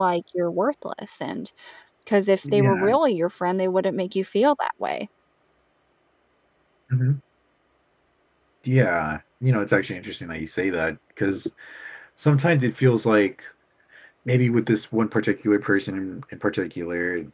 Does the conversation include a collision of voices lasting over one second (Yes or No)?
No